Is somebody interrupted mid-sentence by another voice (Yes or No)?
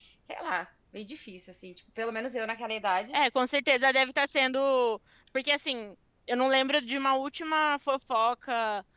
No